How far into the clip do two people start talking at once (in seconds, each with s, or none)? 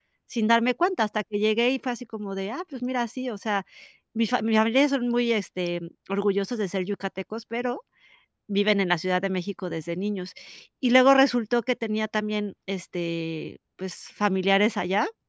none